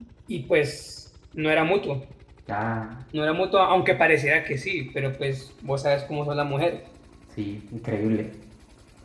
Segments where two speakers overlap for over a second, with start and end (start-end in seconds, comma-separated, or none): none